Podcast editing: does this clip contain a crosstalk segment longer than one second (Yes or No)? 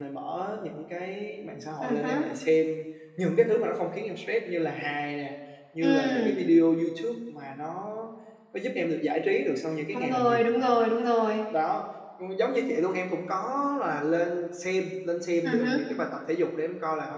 No